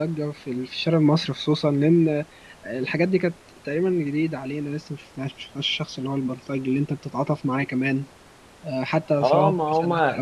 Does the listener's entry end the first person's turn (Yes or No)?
Yes